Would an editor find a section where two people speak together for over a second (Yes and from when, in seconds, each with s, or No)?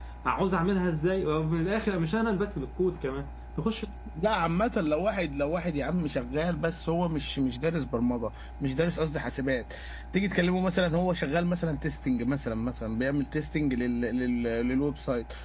No